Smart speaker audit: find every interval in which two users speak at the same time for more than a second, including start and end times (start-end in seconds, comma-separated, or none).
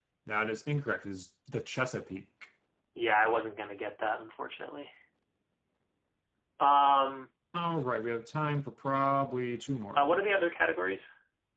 none